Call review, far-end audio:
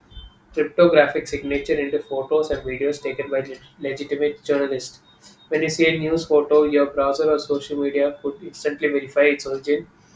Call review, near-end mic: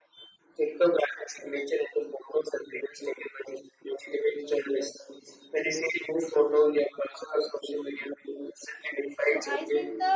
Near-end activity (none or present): present